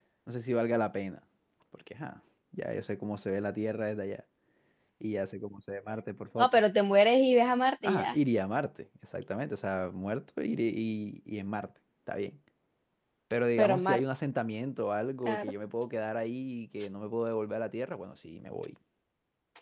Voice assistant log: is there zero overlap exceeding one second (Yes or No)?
Yes